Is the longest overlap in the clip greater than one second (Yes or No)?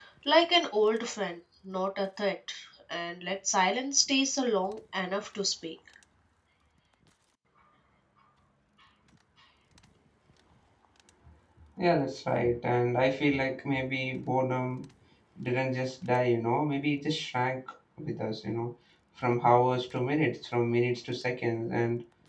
No